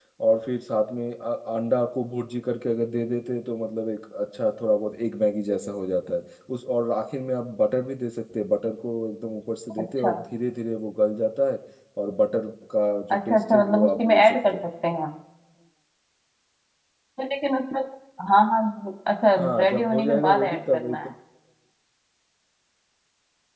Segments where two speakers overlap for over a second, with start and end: 13.1-14.6, 19.4-21.1

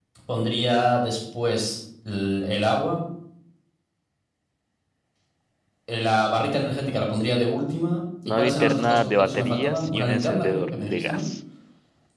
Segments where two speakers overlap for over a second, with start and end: 8.3-11.2

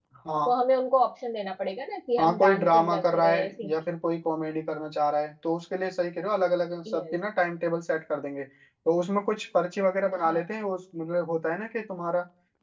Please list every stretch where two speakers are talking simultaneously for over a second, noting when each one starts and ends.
2.2-3.7

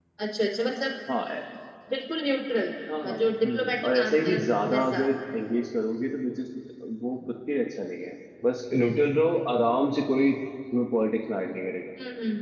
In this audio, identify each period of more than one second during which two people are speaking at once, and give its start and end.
3.2-5.1

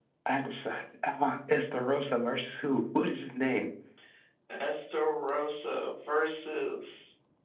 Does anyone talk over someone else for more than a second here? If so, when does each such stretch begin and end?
none

